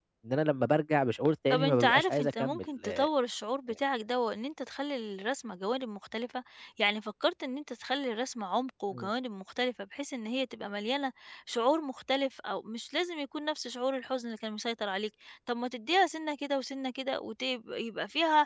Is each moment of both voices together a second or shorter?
No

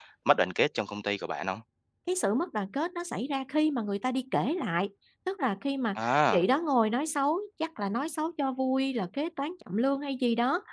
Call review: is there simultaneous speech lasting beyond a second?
No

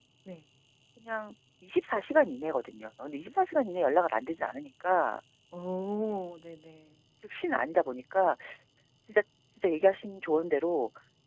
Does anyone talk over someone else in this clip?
No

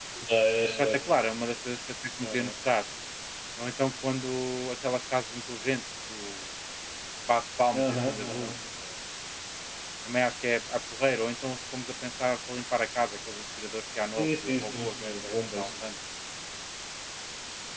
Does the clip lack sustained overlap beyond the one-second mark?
No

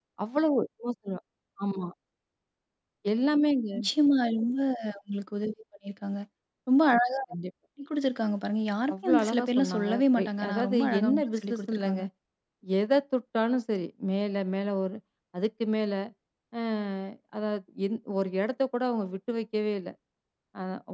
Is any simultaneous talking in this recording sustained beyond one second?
Yes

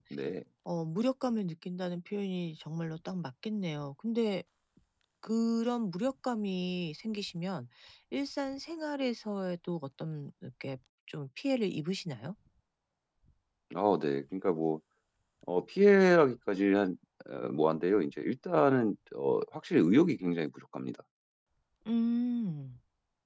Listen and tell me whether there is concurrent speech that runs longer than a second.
No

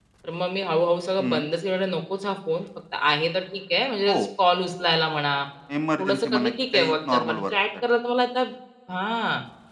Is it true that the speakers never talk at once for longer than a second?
No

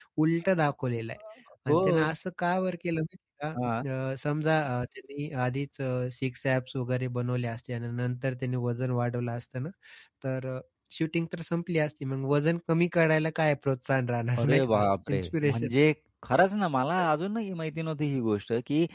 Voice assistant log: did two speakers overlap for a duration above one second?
Yes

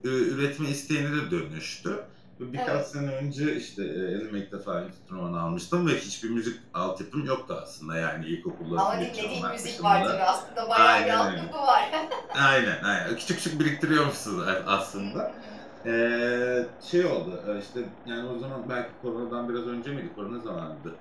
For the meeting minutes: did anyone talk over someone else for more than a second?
Yes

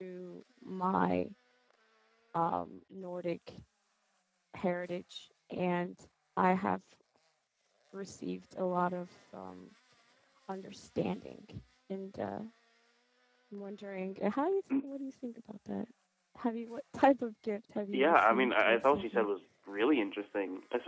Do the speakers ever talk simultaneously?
Yes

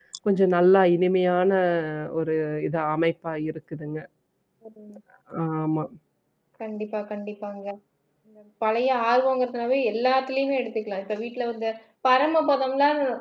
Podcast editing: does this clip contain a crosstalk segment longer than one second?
No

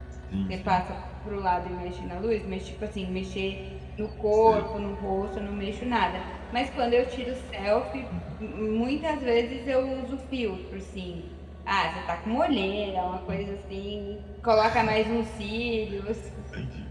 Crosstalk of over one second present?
No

